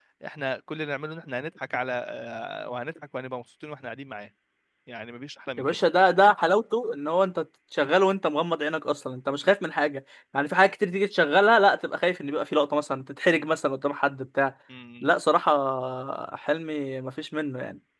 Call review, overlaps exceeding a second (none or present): none